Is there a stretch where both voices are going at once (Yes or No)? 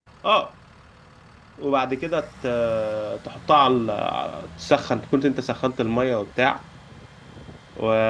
No